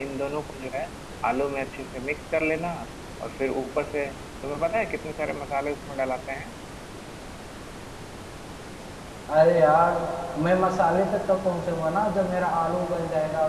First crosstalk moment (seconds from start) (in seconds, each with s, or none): none